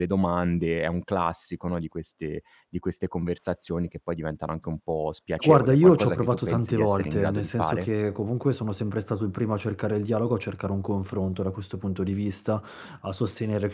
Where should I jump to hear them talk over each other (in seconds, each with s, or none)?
5.4 s